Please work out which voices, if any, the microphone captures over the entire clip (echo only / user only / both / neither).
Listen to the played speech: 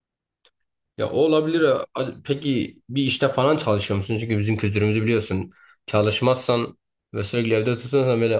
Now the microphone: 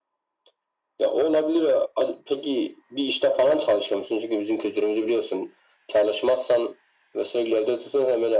echo only